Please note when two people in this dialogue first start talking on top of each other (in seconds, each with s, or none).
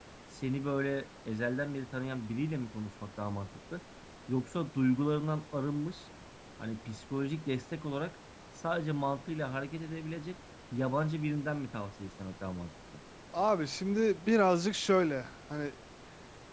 none